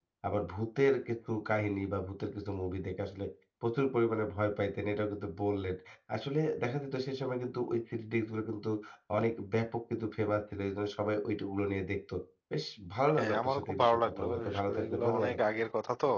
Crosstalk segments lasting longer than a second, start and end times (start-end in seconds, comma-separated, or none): 13.2-15.4